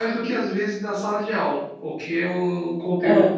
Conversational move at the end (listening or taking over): listening